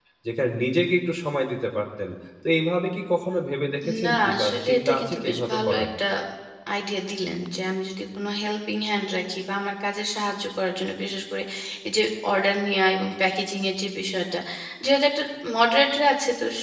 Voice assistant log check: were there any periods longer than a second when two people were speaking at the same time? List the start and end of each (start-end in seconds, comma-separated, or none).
4.0-5.9